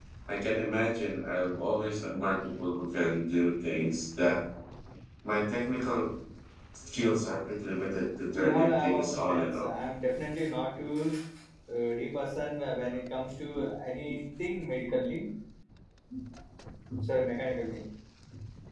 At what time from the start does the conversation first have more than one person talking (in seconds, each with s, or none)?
8.3 s